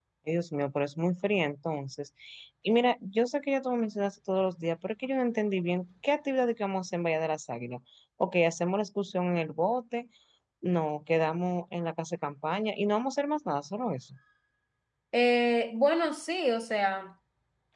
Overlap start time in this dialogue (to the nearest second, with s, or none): none